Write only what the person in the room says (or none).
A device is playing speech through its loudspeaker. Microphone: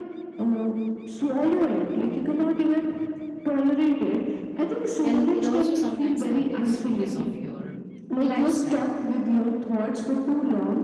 and it also sometimes happens because of your lifestyle